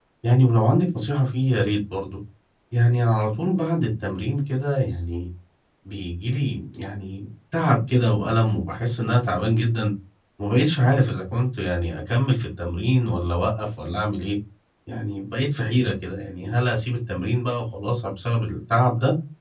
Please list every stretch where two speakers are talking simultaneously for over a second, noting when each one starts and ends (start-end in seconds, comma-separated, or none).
none